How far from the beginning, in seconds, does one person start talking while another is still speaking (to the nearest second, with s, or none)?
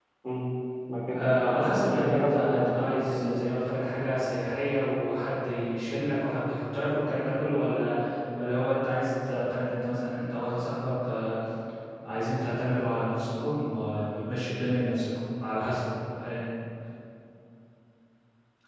1 s